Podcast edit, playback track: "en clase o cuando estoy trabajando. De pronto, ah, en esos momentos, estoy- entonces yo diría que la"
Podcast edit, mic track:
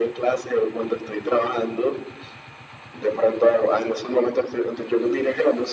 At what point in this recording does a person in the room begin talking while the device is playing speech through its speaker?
none

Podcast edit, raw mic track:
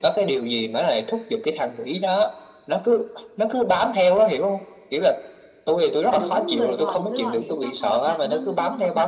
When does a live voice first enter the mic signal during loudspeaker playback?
6 s

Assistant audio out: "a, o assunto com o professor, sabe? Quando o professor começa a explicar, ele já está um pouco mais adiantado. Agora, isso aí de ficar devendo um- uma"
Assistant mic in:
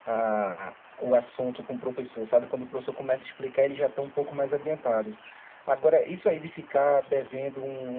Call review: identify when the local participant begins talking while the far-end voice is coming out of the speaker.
none

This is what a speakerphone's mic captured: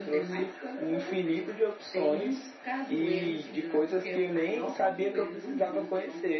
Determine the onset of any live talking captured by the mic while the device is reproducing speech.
none

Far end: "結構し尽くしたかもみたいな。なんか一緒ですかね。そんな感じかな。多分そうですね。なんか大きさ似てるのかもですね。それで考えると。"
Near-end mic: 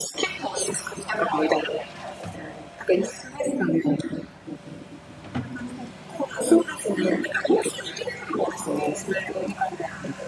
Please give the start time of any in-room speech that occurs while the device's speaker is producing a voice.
none

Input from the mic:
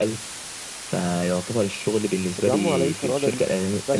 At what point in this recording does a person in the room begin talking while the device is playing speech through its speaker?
2 s

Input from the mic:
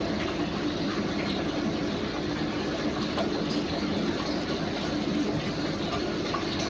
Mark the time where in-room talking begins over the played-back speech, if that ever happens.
none

